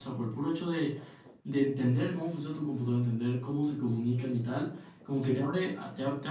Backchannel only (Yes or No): Yes